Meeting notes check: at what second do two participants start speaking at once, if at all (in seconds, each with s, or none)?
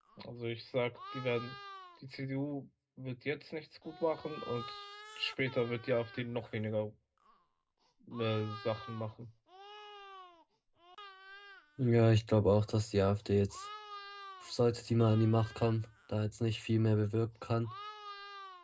none